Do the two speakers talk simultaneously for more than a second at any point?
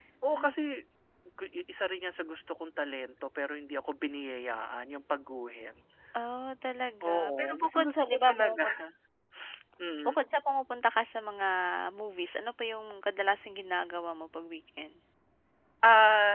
Yes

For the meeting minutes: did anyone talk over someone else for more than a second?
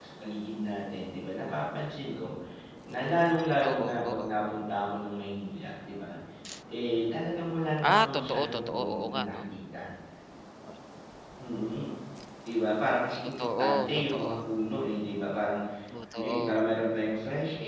Yes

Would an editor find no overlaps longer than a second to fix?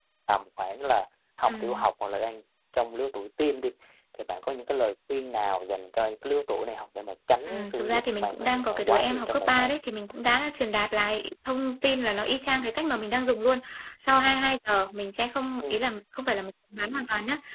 No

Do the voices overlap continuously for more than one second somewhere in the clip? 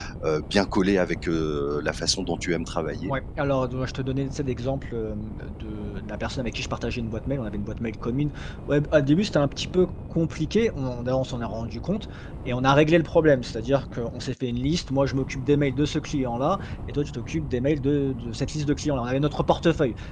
No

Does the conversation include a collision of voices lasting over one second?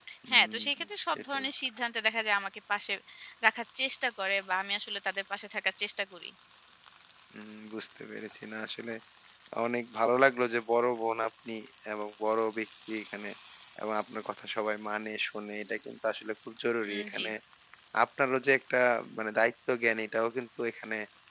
No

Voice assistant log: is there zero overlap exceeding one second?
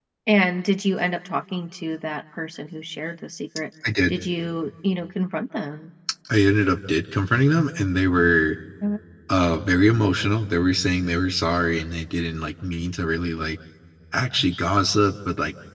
Yes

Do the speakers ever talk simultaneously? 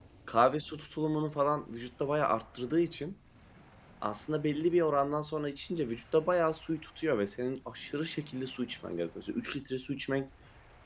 No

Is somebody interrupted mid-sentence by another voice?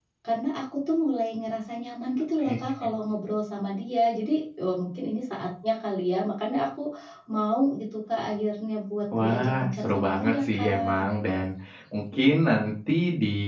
Yes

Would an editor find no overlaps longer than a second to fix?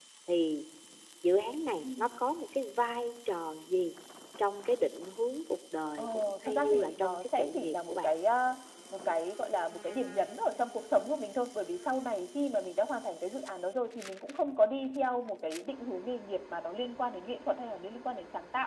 No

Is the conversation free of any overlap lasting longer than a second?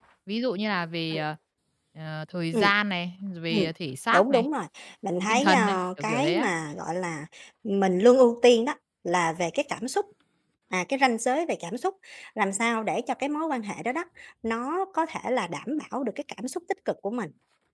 No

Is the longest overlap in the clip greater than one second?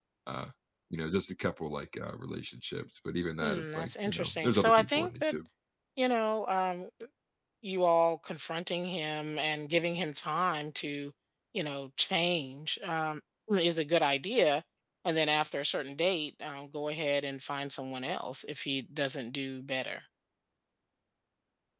Yes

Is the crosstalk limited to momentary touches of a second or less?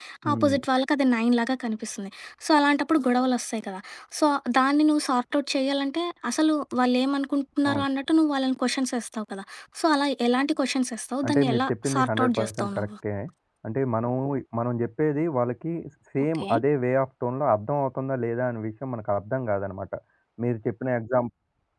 No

